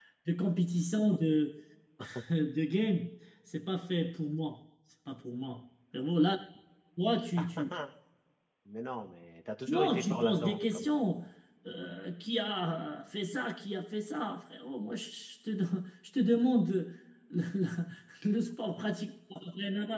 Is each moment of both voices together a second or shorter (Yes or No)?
No